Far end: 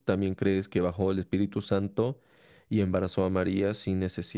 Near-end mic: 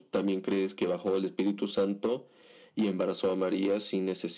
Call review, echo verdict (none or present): present